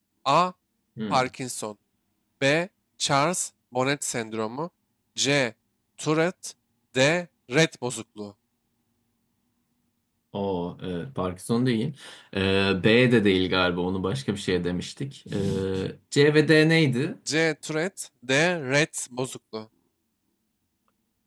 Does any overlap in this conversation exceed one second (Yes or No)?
No